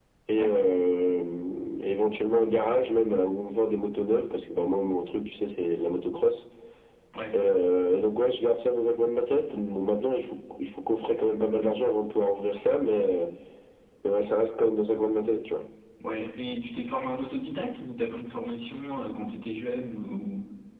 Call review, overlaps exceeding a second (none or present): none